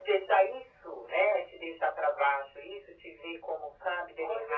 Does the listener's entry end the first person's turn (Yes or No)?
Yes